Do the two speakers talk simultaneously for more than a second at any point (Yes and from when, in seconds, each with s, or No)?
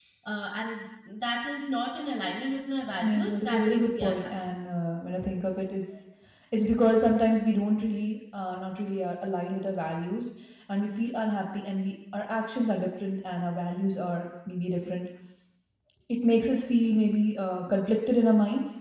Yes, from 3.0 s